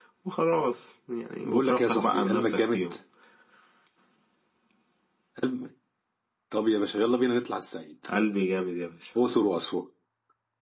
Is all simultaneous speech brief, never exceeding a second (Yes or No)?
No